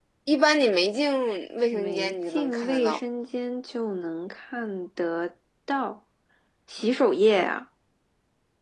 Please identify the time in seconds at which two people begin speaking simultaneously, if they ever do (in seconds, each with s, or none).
1.7 s